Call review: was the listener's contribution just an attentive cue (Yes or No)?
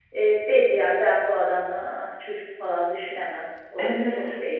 No